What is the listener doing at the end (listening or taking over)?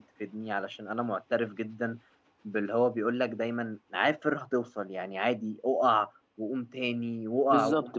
taking over